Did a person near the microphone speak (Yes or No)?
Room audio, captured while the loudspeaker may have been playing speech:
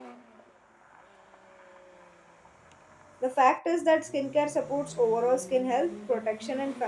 Yes